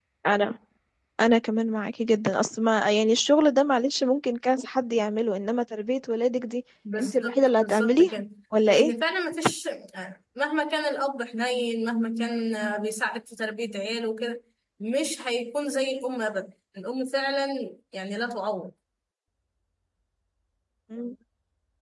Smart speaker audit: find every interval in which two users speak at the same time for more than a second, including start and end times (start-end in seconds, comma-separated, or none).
7.0-8.2